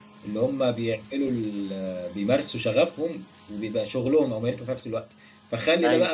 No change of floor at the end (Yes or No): Yes